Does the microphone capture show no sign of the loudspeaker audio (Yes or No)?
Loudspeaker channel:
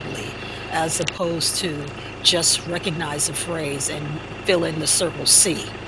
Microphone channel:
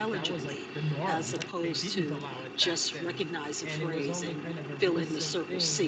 No